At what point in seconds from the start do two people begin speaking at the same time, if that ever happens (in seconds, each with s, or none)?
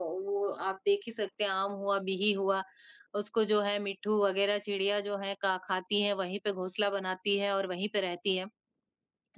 none